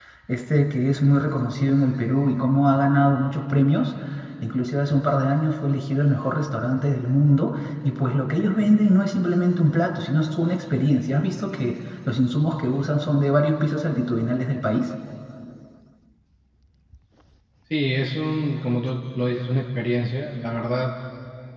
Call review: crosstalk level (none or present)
none